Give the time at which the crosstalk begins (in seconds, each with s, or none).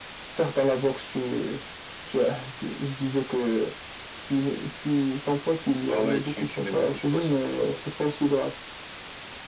5.9 s